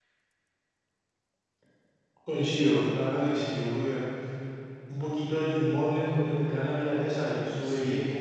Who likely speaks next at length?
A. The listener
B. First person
A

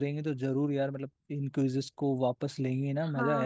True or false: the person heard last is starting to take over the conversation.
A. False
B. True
B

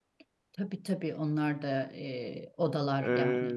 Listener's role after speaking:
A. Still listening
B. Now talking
B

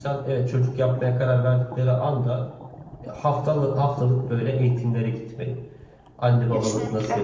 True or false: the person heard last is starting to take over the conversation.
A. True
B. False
B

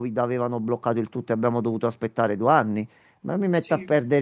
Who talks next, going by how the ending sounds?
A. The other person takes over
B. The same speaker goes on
B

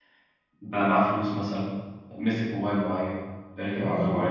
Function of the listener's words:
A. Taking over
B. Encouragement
A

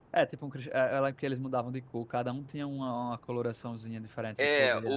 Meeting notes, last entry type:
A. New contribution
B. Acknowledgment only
A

